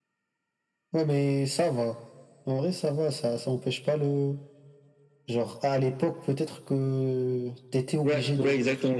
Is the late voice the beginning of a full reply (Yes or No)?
Yes